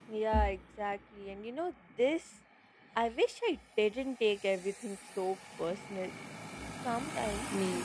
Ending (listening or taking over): listening